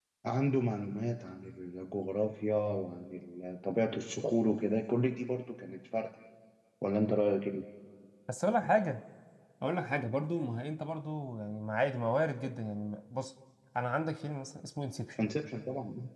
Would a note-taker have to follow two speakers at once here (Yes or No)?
No